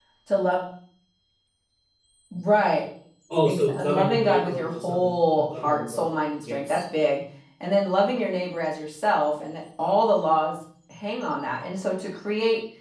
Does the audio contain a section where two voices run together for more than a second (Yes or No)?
Yes